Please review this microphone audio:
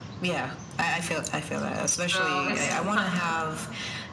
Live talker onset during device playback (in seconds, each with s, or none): 2.1 s